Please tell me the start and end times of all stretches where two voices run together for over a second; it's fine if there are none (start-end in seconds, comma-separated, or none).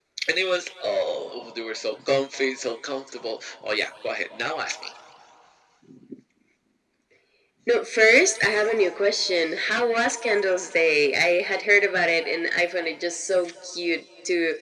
none